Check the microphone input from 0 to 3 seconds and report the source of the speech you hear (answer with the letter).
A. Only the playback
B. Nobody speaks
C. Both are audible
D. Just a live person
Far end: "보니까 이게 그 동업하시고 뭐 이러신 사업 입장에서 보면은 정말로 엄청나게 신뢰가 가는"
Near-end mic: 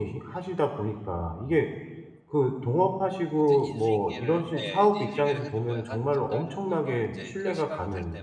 A